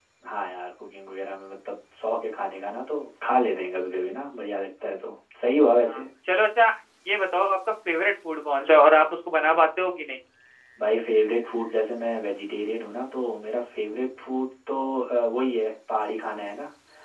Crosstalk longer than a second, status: none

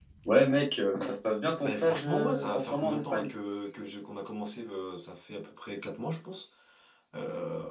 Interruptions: present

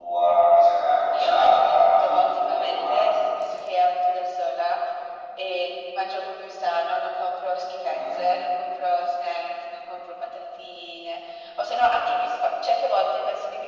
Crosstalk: present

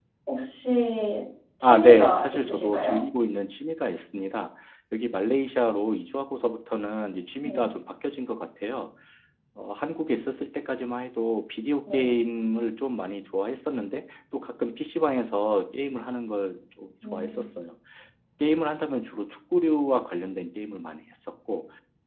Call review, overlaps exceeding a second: present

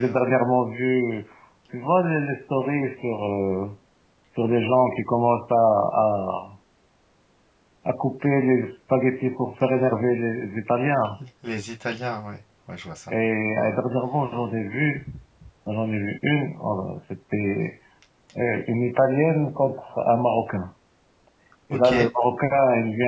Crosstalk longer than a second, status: none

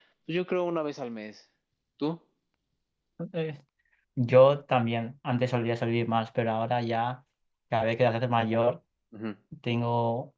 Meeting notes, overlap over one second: none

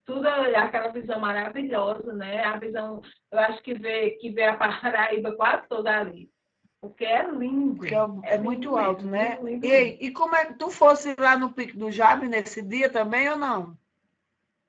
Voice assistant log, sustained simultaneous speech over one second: present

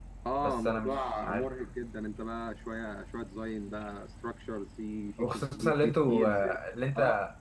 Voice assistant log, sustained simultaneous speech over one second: present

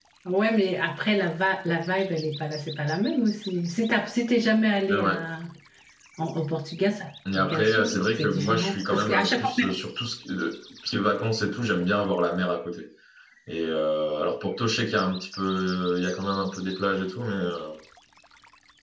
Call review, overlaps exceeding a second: present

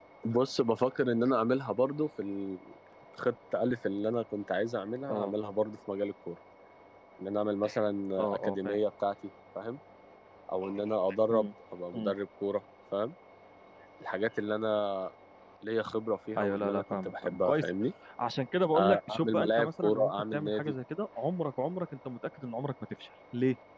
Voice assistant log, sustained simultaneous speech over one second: present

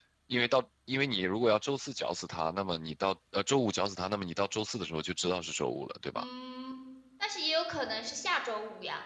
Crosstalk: none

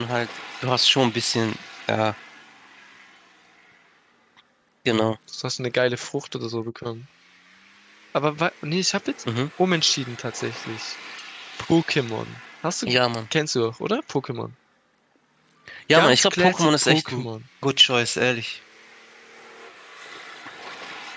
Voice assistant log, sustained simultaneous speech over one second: present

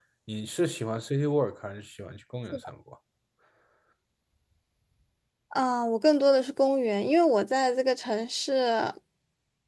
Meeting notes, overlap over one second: none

